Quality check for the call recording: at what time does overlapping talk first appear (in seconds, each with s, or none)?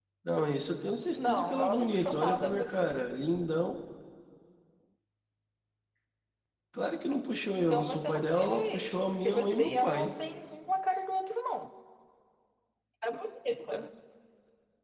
1.1 s